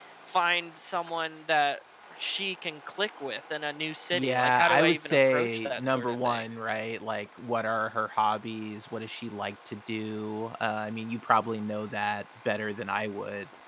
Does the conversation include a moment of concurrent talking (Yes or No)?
Yes